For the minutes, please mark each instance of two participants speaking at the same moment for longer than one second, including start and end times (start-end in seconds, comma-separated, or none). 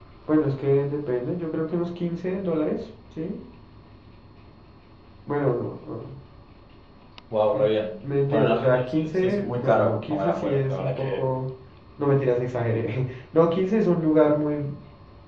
8.3-11.2